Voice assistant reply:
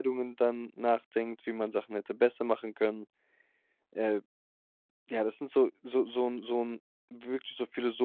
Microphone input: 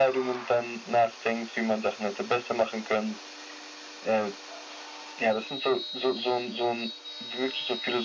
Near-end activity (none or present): none